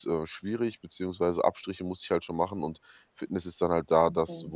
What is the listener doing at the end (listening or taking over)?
listening